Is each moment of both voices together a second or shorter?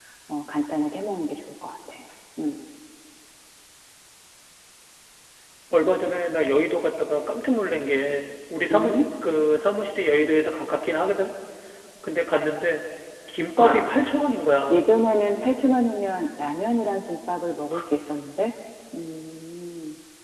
Yes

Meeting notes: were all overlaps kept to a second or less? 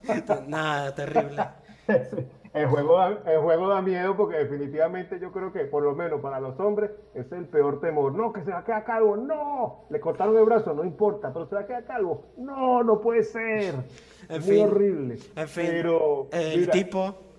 Yes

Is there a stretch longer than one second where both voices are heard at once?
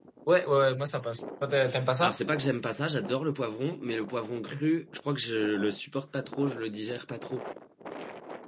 No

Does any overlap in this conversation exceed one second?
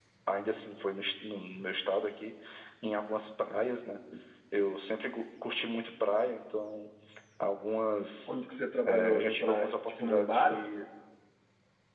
Yes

